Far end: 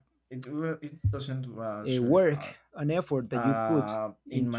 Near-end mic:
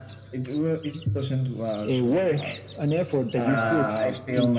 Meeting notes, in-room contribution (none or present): present